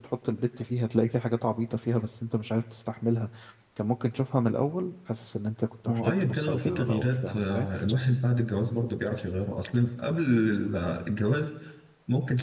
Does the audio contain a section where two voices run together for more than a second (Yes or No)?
Yes